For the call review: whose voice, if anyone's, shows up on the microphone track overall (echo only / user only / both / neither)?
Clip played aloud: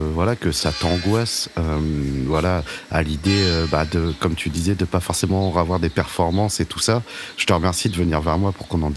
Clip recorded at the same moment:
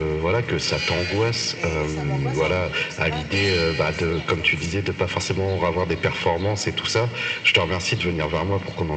both